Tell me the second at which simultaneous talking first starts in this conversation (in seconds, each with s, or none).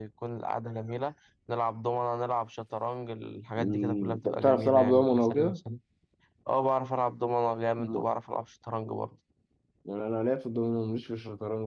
3.6 s